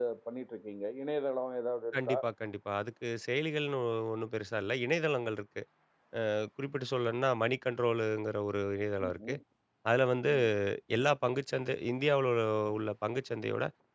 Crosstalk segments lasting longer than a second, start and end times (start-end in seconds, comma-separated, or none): none